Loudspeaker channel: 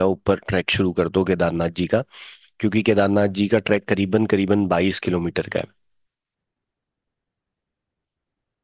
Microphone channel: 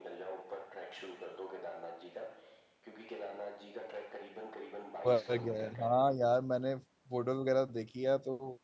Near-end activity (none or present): present